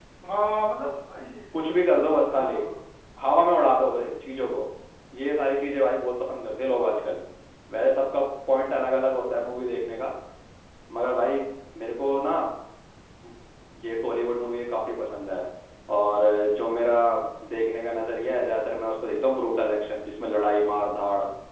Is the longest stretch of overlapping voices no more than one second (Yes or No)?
Yes